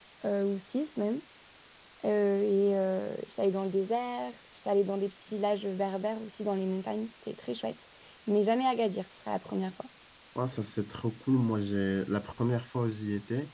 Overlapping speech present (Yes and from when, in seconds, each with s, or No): No